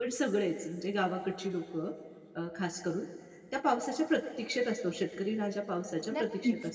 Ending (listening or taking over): listening